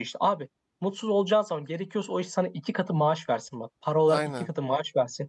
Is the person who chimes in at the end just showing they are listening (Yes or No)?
Yes